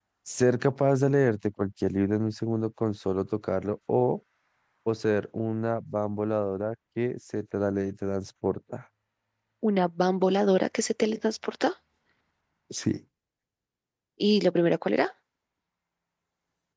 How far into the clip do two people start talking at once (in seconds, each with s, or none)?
none